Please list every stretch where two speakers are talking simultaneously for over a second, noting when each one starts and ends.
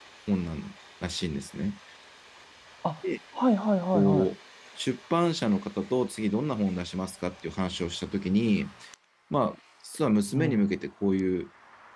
none

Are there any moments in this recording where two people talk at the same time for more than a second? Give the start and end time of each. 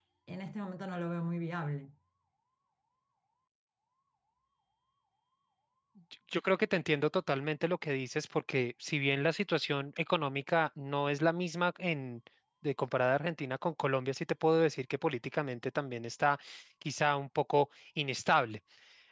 none

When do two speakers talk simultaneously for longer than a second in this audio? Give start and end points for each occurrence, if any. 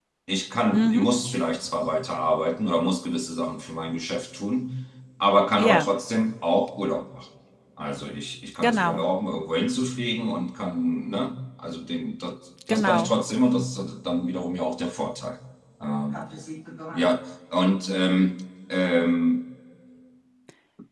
none

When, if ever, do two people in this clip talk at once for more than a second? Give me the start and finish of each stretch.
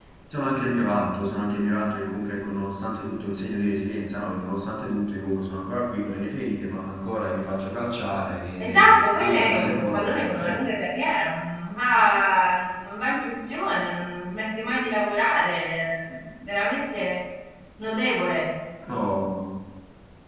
8.6-10.6

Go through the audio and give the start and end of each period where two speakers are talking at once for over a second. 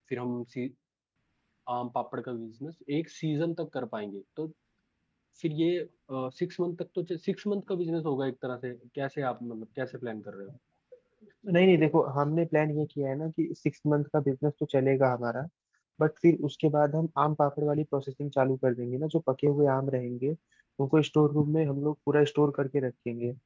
none

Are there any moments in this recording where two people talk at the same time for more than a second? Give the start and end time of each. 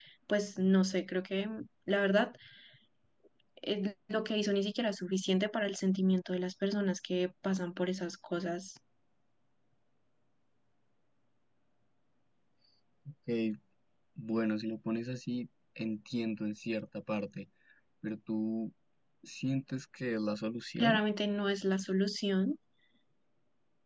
none

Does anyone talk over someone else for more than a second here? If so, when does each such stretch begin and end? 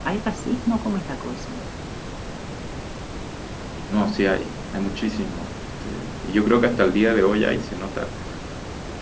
none

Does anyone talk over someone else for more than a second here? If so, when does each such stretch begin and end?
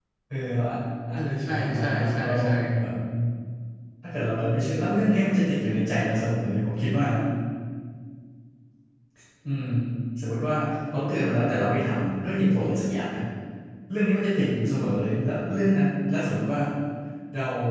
1.2-2.5

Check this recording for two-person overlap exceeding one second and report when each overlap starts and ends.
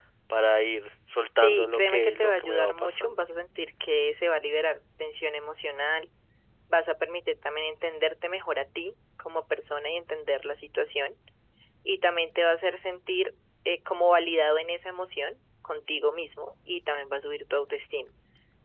1.4-3.2

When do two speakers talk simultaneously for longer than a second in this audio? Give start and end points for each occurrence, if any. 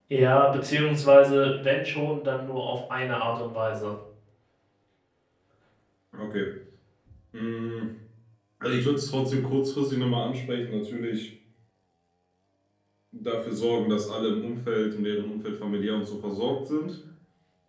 none

